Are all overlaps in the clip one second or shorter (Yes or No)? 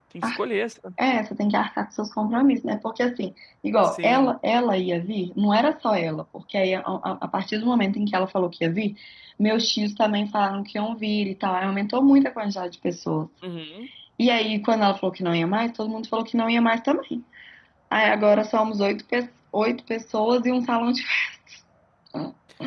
Yes